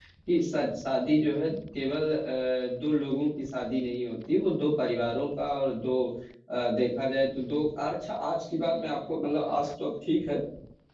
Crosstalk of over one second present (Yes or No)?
No